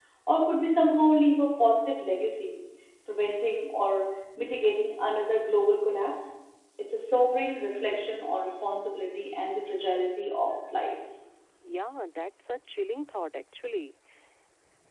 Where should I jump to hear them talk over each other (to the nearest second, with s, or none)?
none